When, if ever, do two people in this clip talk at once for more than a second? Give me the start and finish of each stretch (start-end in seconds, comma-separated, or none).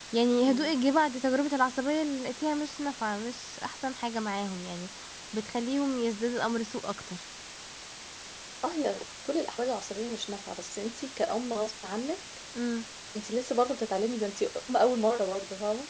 none